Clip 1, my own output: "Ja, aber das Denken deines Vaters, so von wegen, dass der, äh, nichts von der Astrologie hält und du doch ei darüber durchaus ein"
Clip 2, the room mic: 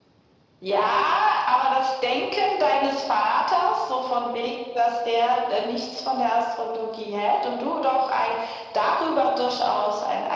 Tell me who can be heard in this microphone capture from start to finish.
echo only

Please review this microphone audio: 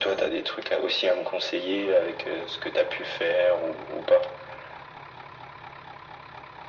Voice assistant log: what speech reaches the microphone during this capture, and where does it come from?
echo only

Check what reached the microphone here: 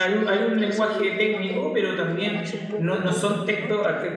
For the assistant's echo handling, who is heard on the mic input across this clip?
both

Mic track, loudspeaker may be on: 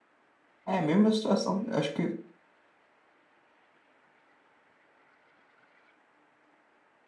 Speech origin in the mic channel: user only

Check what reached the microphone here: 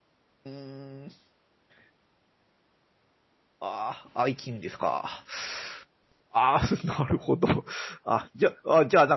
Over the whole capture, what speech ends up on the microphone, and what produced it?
user only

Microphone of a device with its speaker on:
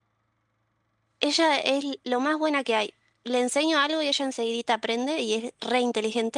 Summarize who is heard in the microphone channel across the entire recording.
user only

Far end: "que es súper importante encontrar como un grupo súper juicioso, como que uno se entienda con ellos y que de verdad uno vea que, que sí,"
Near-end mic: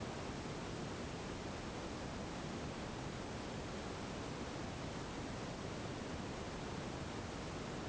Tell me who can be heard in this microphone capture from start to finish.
neither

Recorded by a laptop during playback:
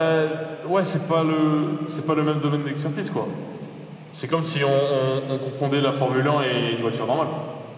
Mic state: echo only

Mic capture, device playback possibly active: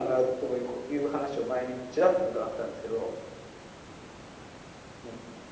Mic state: echo only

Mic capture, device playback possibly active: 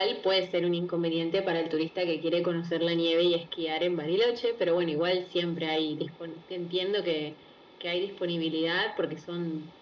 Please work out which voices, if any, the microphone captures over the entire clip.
echo only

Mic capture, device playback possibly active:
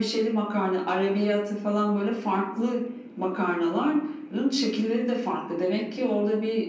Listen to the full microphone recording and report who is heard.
echo only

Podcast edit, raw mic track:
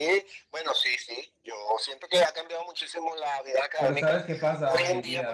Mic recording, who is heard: both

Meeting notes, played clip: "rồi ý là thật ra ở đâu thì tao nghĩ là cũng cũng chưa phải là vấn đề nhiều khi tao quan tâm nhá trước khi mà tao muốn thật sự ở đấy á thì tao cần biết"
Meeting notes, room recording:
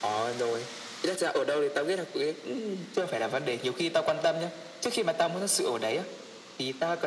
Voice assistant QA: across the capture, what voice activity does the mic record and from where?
echo only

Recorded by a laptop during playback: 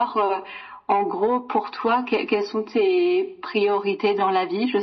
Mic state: echo only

